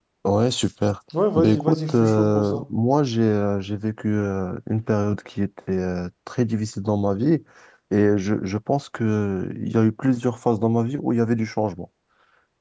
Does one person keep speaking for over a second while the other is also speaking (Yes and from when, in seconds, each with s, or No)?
Yes, from 1.1 s